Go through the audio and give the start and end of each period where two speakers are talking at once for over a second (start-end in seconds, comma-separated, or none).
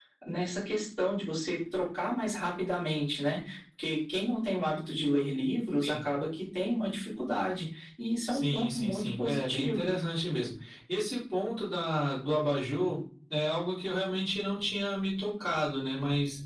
8.3-9.9